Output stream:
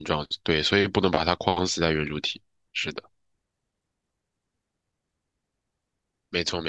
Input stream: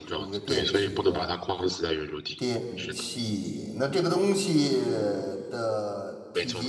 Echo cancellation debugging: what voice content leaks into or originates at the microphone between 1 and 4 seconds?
both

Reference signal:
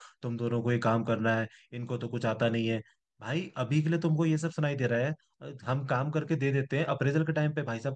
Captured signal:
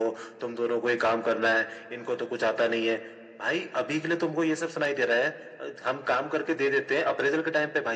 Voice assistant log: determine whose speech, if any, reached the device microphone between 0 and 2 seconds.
echo only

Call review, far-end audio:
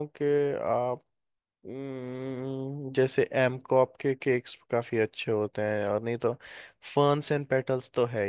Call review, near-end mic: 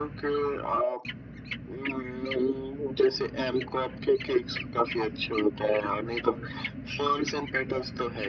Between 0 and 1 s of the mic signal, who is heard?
echo only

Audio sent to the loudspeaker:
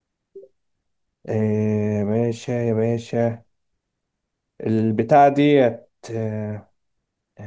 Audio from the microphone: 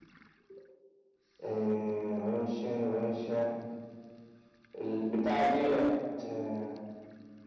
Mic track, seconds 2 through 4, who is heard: echo only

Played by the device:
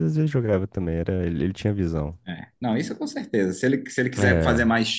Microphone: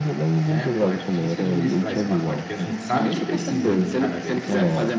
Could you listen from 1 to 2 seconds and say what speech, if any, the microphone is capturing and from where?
both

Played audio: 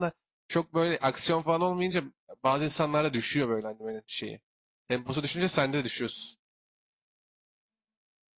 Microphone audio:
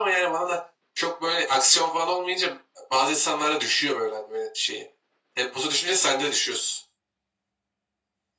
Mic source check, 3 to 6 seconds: echo only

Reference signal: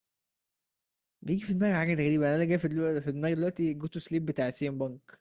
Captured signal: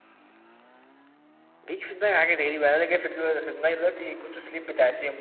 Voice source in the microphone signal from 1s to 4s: echo only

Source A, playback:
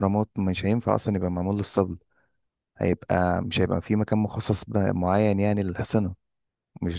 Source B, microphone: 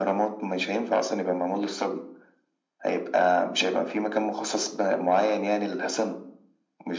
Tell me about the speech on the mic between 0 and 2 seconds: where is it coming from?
echo only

